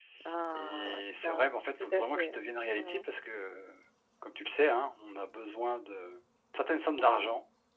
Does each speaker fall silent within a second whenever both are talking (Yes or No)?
No